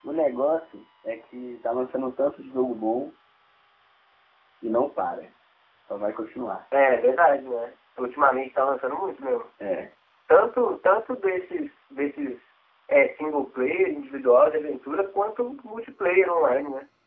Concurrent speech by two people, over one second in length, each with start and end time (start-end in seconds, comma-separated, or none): none